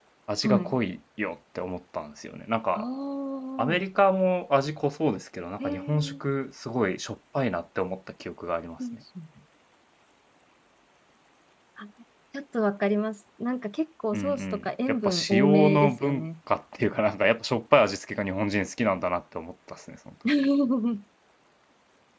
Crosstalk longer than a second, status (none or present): present